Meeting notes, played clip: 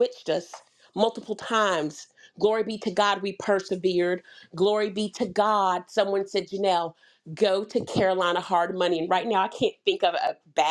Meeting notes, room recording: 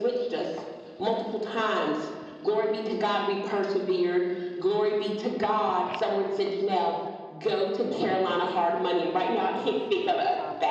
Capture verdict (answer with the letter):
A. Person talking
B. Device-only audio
A